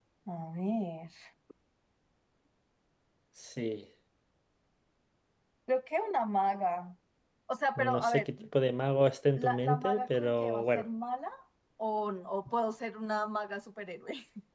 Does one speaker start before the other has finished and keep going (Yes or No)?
Yes